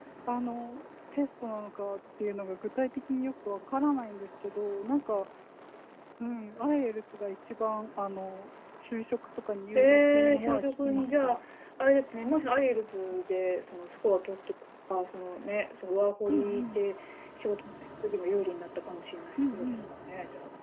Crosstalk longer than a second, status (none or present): present